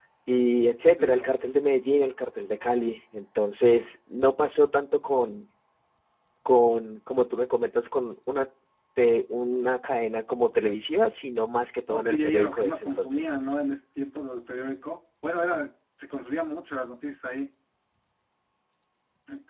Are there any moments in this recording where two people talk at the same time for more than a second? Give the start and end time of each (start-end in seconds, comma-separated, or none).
11.9-13.2